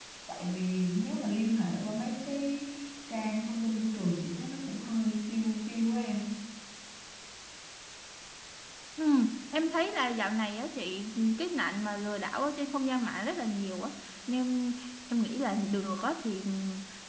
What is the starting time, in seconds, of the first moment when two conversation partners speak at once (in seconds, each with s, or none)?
none